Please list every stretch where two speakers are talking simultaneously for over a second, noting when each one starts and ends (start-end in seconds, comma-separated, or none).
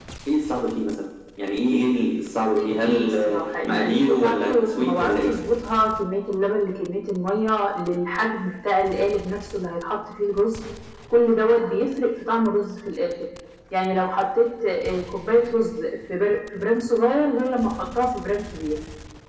2.5-5.3